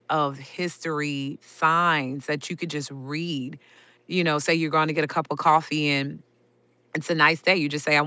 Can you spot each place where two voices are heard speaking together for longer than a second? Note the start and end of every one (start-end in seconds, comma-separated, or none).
none